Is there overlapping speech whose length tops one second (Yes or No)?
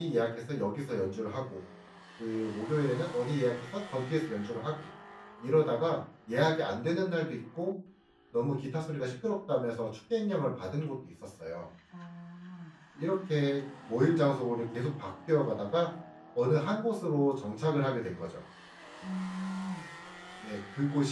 No